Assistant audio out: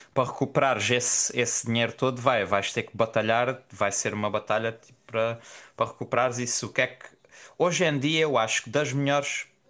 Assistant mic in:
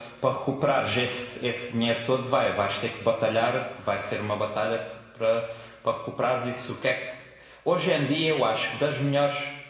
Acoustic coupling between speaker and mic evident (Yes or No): Yes